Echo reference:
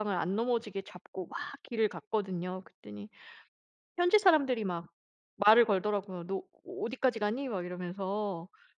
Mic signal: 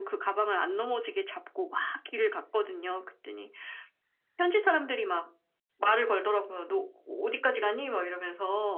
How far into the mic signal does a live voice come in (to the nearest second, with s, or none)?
none